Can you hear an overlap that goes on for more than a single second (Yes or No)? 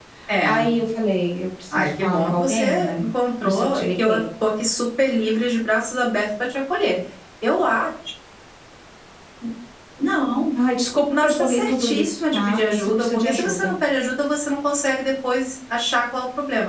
Yes